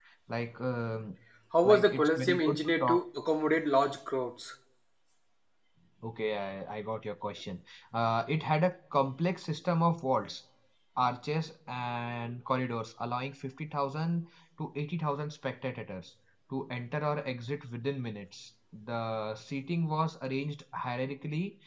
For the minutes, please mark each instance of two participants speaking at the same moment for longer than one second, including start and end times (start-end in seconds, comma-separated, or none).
1.6-3.0